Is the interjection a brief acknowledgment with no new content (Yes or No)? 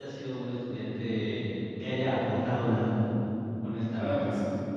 No